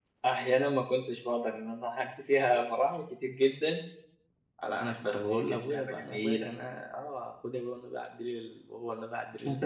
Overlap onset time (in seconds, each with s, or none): 5.0 s